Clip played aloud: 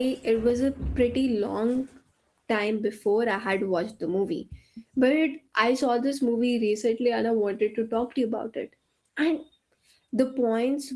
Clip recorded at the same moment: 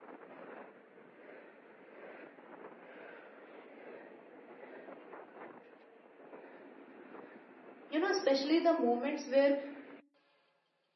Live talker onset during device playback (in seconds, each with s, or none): 7.9 s